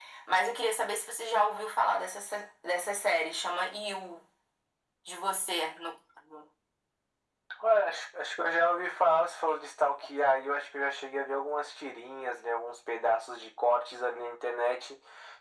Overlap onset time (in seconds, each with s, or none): none